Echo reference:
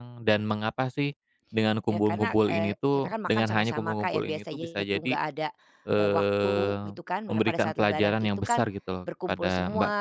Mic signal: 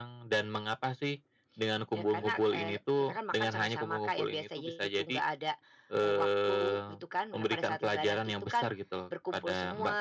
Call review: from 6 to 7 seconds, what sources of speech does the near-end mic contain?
echo only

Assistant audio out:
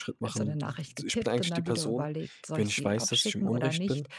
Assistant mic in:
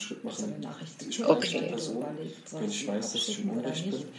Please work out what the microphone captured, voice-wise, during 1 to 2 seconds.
both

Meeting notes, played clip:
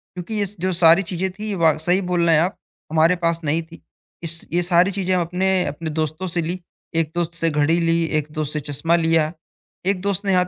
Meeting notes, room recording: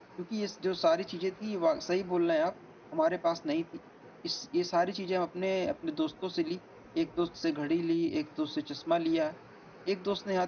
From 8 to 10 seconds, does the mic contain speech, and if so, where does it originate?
echo only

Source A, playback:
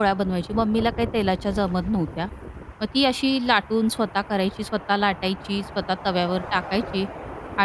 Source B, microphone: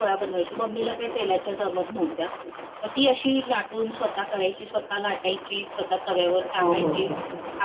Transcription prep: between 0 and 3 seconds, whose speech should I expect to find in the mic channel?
echo only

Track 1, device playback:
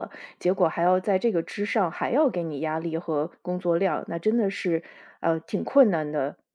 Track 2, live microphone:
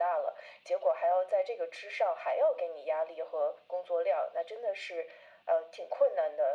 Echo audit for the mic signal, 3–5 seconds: echo only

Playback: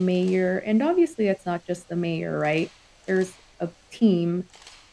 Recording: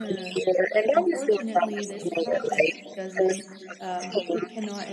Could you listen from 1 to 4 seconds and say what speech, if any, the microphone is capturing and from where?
both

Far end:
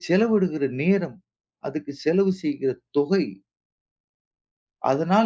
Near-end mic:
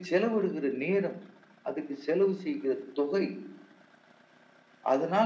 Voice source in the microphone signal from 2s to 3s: echo only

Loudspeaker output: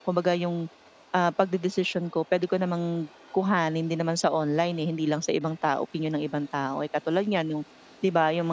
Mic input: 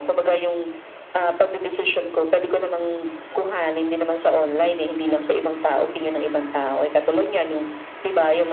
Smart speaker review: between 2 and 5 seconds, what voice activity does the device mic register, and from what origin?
echo only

